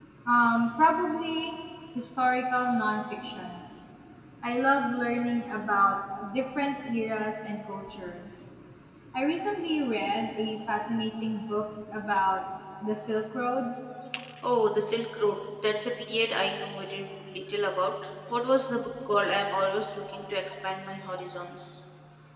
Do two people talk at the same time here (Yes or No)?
No